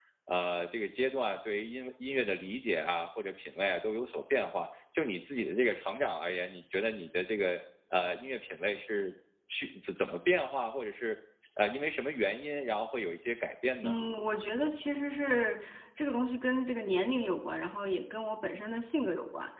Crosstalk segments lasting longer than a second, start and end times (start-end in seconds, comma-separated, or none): none